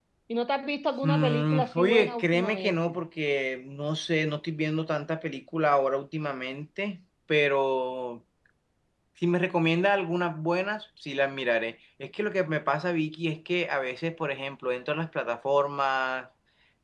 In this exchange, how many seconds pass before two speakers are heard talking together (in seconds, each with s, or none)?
1.0 s